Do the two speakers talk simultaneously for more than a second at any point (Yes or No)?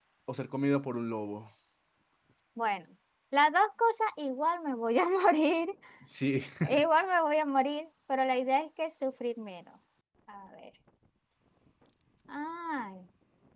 No